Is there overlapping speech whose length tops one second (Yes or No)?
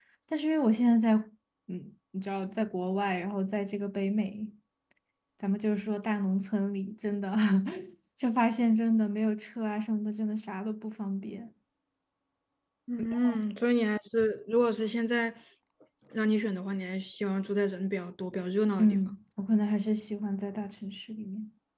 No